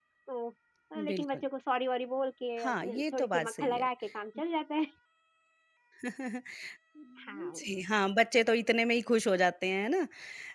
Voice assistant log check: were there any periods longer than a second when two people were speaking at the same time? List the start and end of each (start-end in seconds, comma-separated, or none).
2.6-3.9